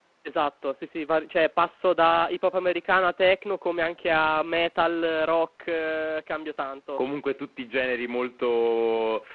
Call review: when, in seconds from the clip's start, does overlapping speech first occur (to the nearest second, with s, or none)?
none